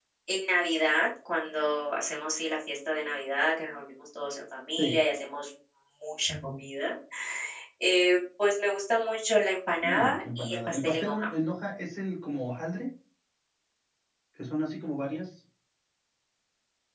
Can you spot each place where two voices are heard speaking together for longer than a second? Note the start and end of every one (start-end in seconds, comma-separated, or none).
9.8-11.3